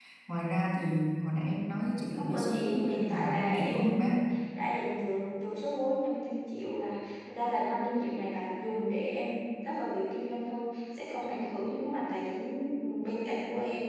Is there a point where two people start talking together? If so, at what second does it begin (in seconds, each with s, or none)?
2.1 s